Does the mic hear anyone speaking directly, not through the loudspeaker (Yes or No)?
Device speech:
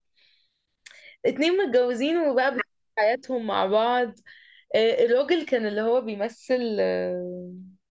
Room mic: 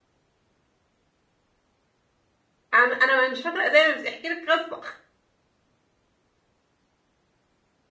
Yes